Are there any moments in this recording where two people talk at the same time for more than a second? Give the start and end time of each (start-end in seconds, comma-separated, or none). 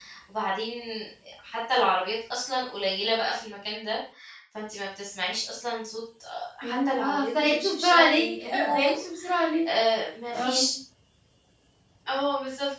6.6-9.0